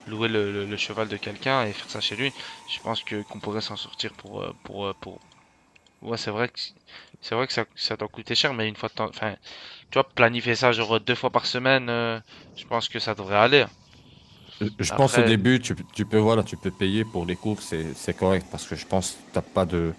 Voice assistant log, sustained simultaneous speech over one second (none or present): none